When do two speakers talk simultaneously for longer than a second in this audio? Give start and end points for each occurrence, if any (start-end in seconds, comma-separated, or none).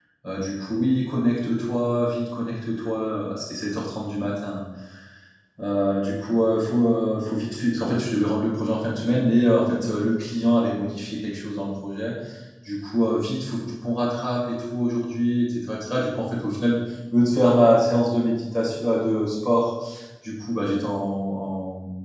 none